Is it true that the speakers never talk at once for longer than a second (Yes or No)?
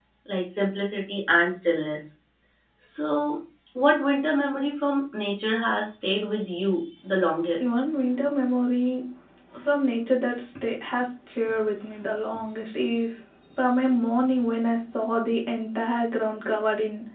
Yes